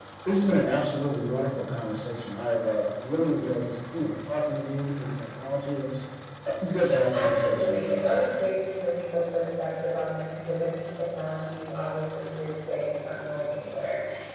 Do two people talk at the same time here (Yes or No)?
Yes